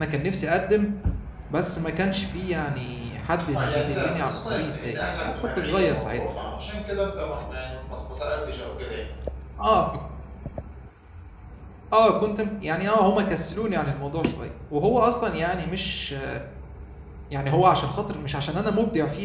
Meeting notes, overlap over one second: present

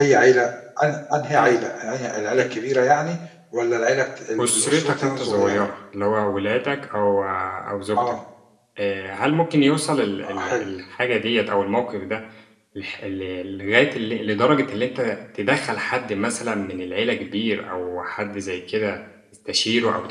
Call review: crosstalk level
present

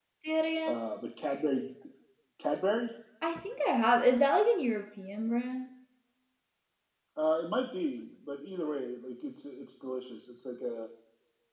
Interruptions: none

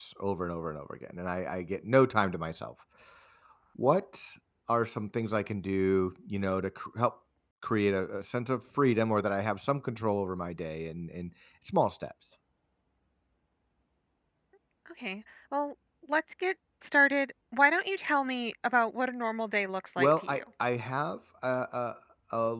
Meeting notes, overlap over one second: none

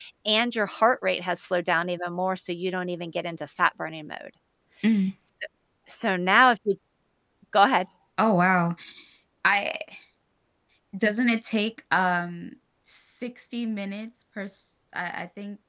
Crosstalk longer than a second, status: none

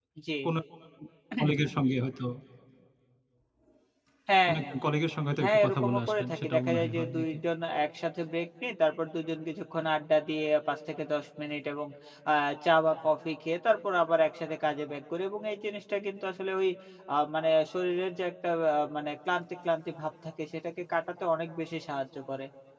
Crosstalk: present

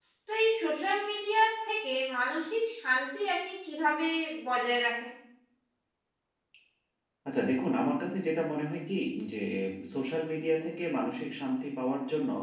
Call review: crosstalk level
none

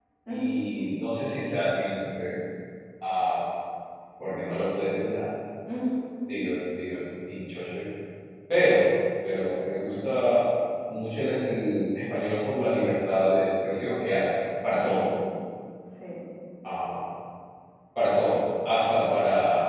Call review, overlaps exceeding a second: none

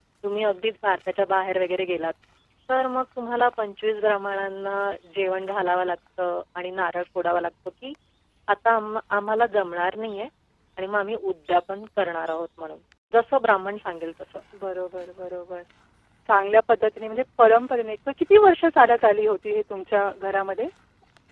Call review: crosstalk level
none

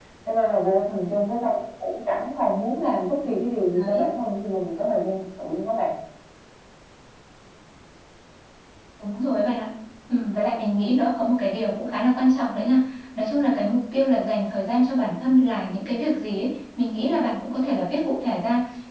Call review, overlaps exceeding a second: none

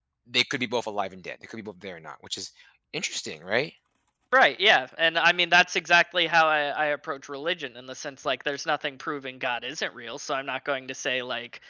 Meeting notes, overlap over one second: none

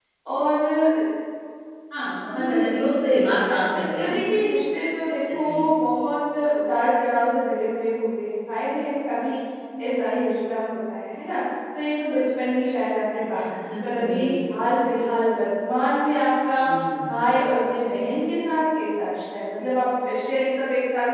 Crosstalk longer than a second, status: present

